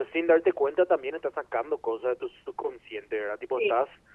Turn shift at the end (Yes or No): No